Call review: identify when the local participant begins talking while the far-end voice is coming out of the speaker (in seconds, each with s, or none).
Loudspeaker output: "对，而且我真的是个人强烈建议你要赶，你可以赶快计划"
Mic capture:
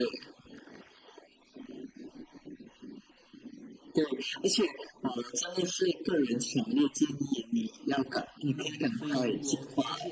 8.4 s